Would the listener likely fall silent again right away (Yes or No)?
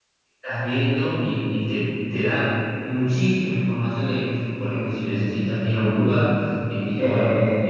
Yes